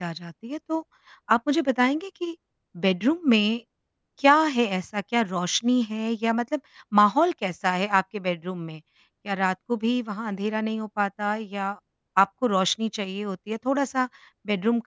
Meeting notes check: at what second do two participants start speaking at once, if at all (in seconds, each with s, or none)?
none